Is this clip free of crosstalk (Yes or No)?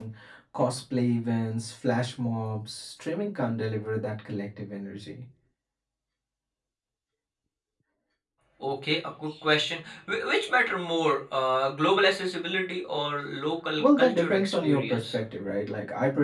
No